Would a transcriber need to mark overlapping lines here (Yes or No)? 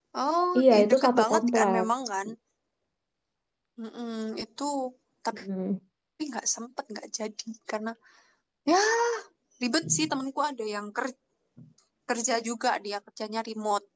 Yes